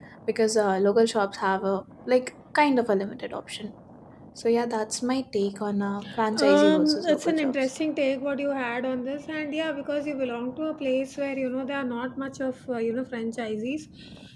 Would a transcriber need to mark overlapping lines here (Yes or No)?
Yes